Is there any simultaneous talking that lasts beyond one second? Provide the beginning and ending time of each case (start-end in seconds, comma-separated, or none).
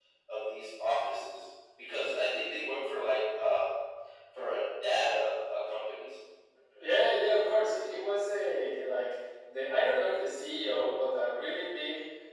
none